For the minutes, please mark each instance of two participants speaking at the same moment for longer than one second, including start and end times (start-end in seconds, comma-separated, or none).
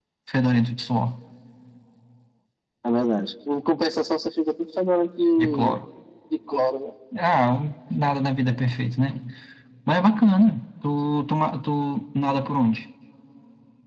none